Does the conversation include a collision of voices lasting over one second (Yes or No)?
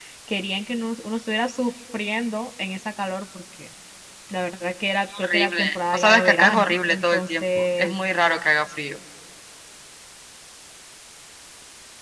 Yes